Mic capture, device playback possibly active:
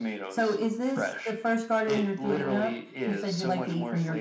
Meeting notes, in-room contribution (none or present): none